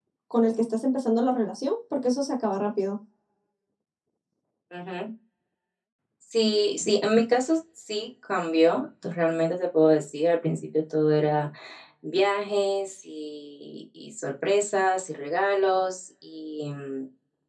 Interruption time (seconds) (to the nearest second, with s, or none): none